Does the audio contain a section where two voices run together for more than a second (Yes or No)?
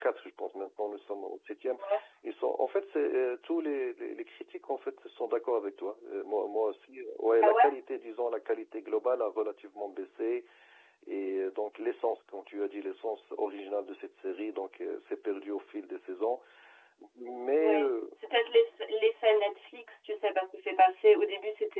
No